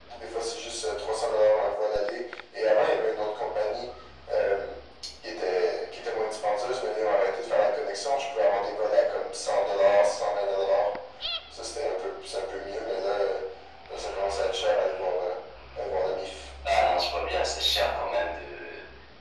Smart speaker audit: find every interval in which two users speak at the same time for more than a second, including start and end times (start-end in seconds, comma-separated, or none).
none